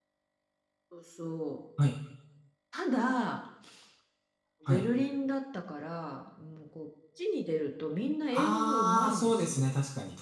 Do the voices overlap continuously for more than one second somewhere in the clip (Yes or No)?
Yes